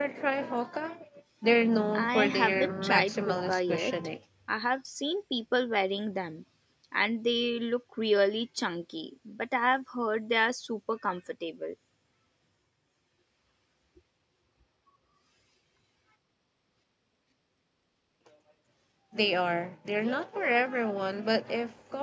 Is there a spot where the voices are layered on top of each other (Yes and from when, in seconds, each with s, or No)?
Yes, from 1.9 s